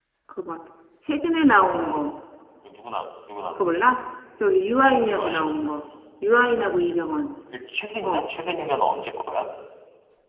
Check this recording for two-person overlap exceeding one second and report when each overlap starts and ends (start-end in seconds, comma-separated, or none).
none